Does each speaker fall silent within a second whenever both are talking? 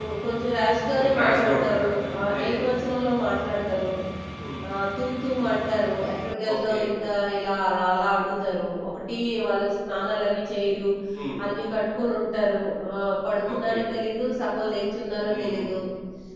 No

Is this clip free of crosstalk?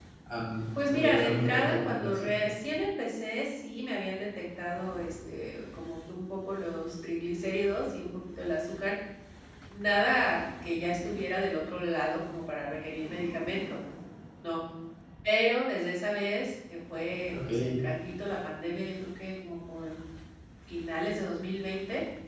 No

